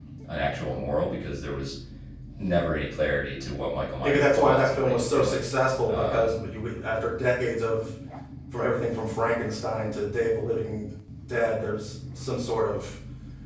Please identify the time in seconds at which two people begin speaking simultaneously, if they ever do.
4 s

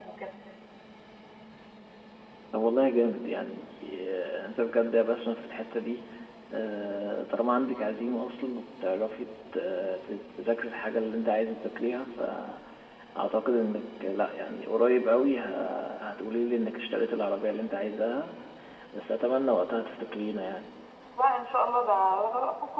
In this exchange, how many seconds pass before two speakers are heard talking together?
none

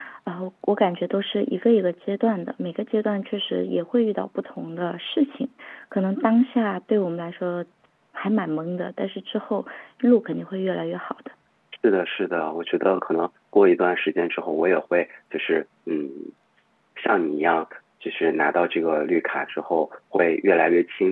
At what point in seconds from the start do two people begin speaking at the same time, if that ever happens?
none

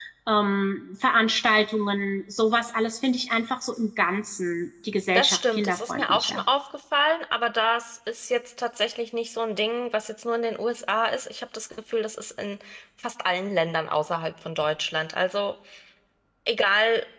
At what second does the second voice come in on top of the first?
5 s

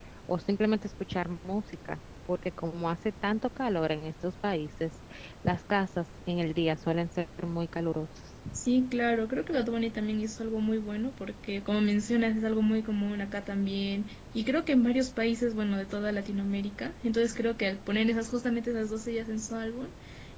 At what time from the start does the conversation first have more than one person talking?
none

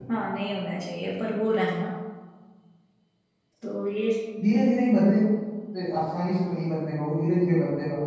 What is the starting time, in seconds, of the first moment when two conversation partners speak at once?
none

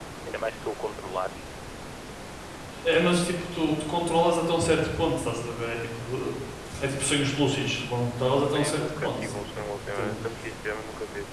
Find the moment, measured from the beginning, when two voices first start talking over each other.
9 s

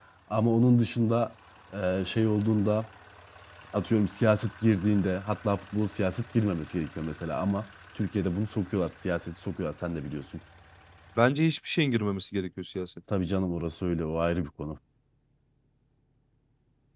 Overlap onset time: none

